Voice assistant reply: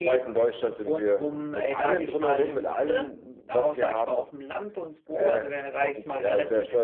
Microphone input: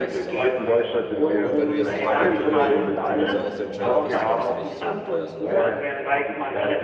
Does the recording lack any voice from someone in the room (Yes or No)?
No